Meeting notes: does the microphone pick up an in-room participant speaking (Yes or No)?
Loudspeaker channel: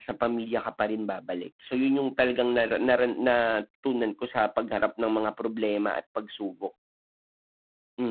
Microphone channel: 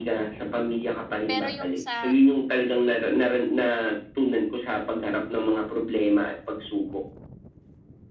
Yes